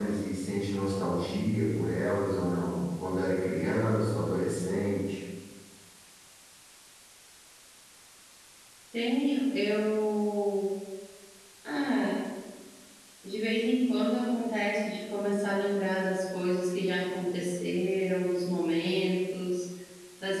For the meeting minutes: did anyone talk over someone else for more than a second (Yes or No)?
No